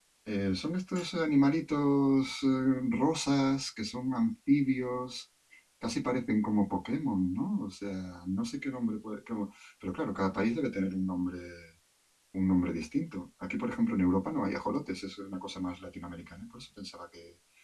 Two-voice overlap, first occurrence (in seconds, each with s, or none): none